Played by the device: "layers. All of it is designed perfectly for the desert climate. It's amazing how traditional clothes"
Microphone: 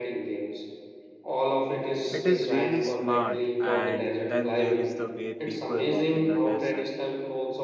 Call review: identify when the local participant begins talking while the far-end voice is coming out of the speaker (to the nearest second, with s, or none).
2 s